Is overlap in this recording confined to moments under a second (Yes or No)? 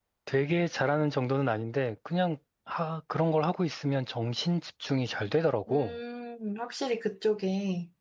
Yes